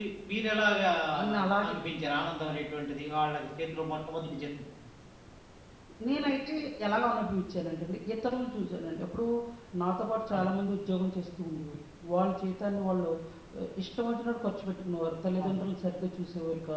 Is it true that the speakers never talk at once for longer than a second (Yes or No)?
Yes